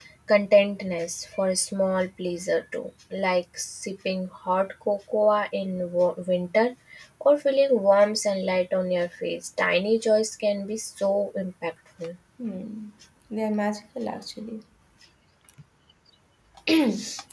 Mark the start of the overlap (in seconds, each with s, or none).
none